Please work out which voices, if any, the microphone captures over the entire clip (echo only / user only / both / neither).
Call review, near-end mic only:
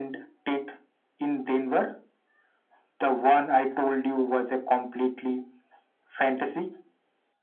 echo only